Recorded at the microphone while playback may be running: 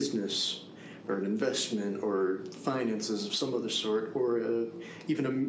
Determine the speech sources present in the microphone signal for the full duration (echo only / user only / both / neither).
echo only